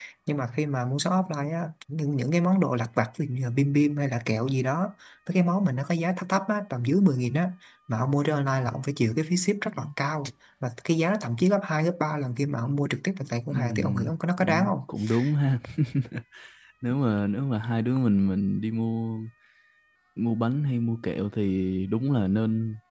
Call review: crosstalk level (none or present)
present